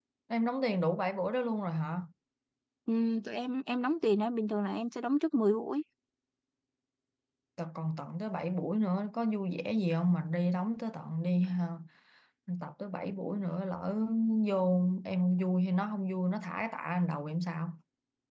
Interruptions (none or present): none